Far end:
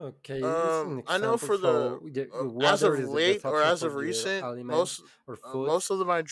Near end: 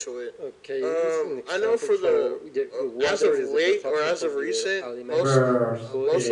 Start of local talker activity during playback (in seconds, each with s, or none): 5.2 s